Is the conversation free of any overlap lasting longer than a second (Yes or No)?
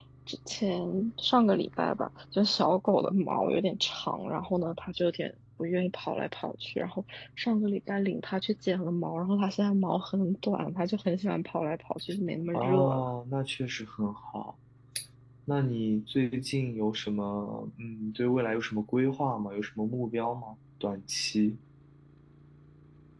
Yes